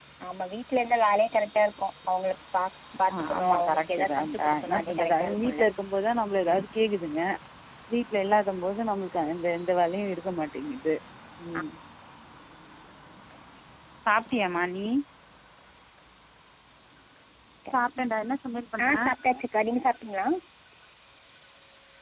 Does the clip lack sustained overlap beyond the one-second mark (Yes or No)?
No